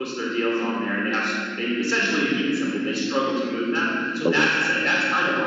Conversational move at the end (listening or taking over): listening